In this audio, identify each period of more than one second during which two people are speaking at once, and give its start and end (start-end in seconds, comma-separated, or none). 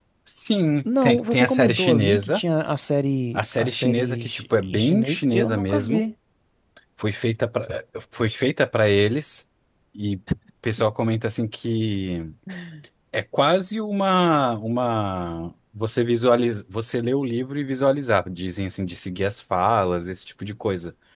0.8-2.4, 3.3-6.0